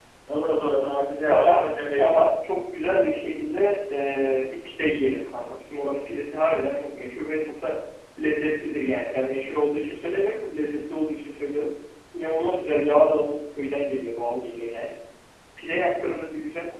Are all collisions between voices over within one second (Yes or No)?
No